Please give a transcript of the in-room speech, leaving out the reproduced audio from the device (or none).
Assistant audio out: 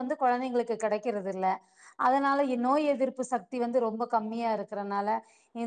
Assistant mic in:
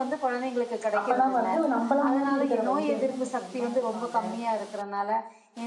அப்பதா வந்து நம்பள மாரி இருக்கிற வயசுல வந்து அவங்க தெம்பா இருப்பாங்க